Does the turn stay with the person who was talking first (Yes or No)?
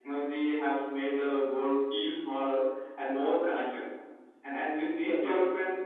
Yes